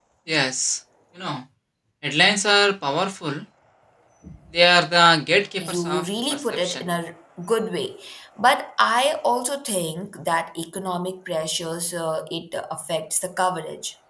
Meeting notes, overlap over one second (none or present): present